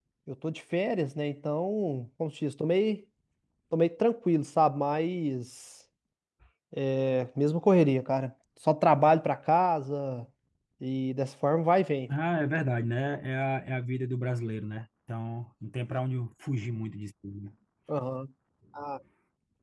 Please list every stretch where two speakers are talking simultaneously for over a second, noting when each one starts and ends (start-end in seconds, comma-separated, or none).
none